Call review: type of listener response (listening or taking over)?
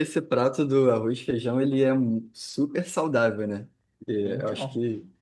listening